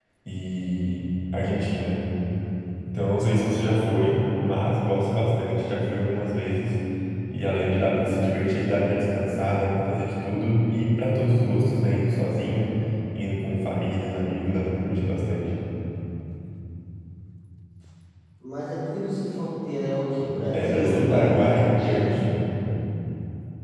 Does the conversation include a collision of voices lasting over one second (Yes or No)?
Yes